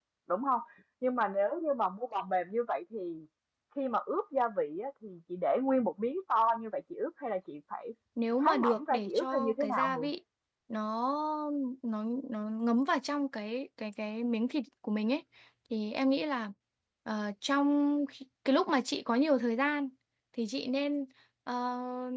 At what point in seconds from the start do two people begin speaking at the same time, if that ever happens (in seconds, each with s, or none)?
8.4 s